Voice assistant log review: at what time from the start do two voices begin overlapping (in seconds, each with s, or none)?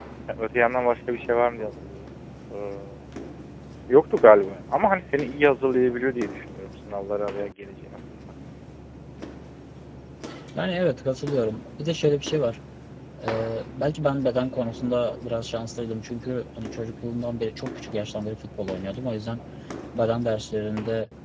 none